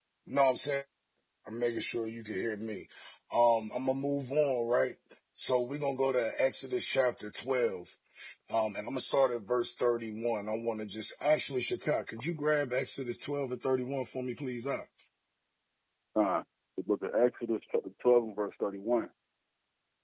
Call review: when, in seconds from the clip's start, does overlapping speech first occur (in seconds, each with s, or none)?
none